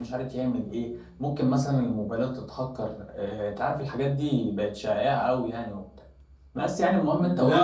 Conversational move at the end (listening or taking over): taking over